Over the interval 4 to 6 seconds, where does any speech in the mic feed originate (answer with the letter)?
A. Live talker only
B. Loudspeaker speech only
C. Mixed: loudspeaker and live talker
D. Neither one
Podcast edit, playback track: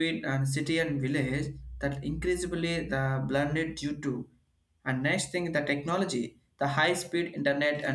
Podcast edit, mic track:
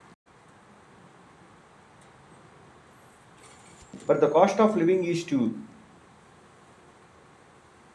A